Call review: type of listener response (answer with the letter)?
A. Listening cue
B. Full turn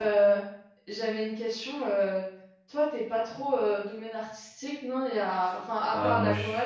B